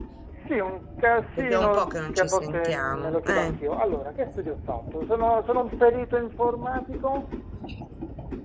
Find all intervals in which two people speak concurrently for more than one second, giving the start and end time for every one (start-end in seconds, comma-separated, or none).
1.4-3.6